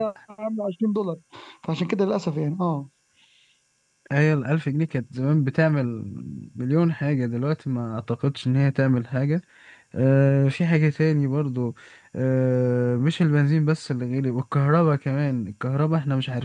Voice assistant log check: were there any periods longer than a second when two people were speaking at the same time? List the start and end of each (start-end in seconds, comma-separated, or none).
none